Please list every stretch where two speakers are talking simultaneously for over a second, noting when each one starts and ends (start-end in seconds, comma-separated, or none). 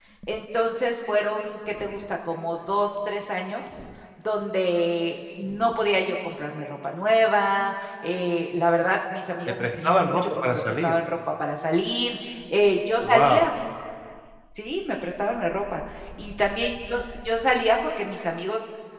9.6-11.0